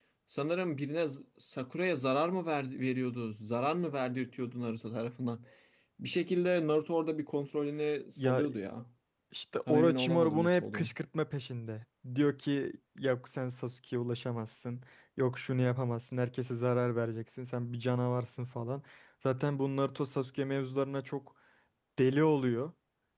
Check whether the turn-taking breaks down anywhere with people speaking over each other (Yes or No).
Yes